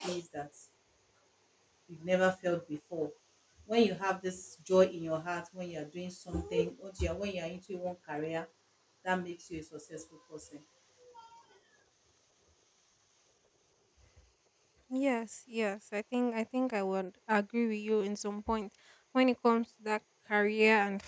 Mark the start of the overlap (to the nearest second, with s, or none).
none